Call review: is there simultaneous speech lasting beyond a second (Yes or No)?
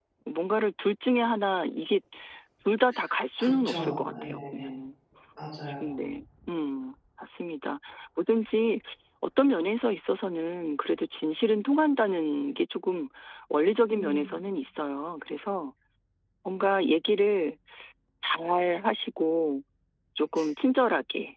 Yes